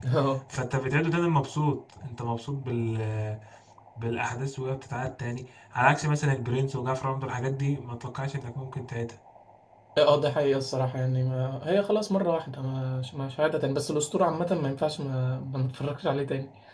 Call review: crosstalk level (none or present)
none